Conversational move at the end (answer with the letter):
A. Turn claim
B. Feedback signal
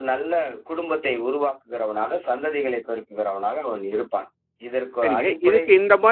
A